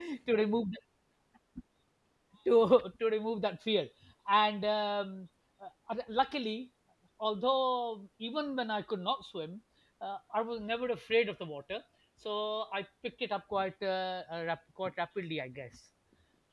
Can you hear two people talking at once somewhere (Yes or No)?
No